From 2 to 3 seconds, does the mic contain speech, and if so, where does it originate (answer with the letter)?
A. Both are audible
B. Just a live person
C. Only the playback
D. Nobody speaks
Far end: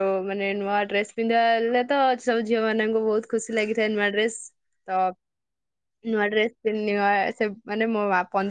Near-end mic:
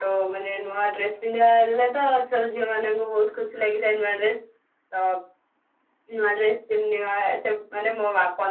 C